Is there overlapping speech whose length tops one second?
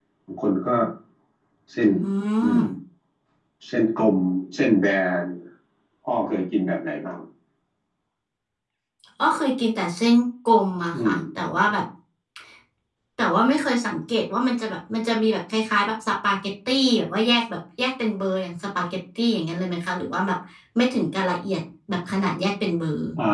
No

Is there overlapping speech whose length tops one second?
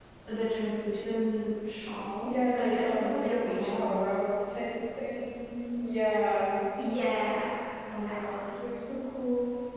Yes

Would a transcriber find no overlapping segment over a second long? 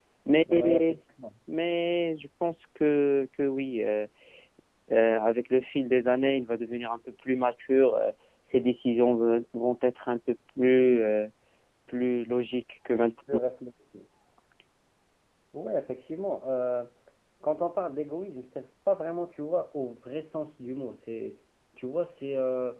Yes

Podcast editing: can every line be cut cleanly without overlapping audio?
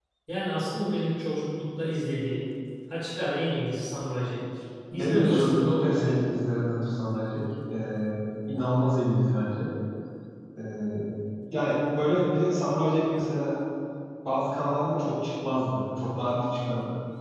No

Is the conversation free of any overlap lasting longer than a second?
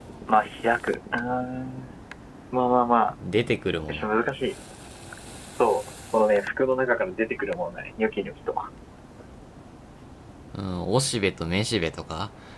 Yes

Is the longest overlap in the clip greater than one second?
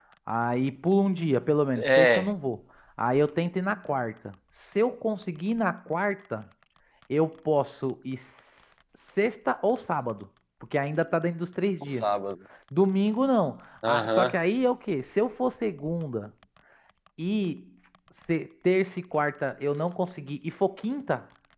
No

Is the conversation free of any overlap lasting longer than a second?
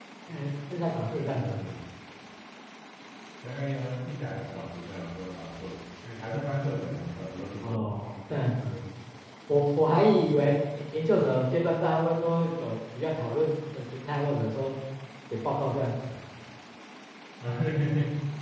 Yes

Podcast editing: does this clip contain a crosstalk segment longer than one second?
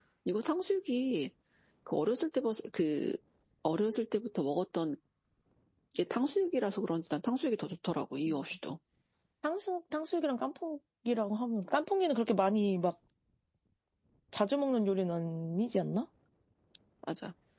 No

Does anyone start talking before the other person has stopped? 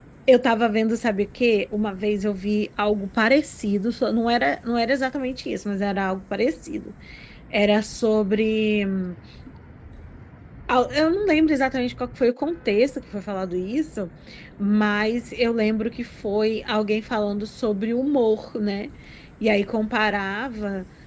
No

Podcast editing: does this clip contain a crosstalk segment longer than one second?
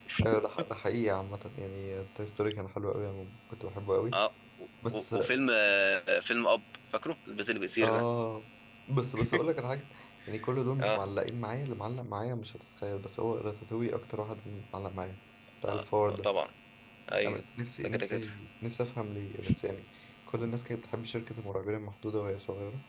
No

